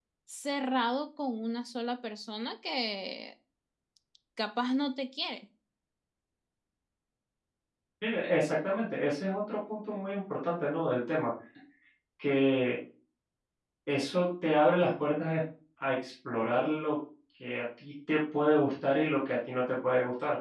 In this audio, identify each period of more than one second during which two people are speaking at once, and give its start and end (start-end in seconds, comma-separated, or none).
none